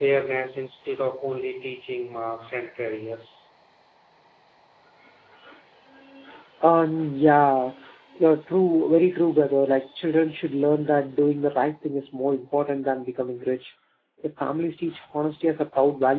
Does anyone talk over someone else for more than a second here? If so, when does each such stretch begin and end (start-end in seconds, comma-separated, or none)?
none